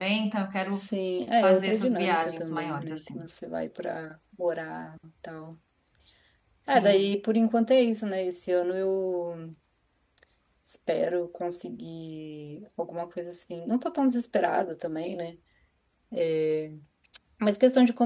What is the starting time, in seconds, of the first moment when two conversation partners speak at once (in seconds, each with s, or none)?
1.4 s